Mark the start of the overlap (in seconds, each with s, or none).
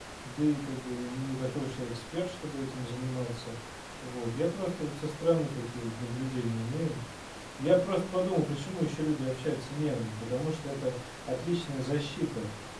none